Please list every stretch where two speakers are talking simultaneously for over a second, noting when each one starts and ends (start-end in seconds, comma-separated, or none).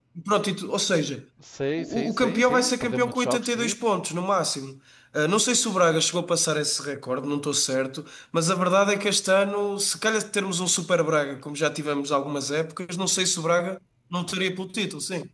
1.8-3.9